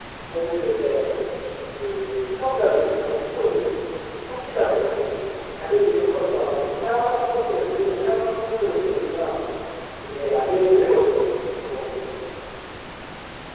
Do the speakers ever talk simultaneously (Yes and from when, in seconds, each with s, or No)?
No